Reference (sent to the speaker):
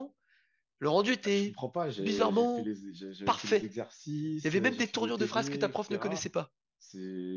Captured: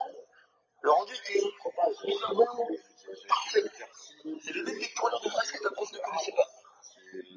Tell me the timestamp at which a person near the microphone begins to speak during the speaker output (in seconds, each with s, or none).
none